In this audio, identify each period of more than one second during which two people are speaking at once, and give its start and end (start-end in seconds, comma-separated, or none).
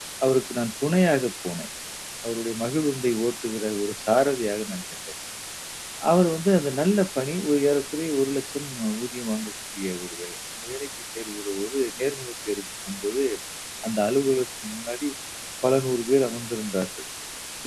none